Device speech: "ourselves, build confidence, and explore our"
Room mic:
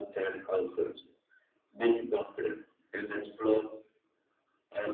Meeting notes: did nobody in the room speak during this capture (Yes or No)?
Yes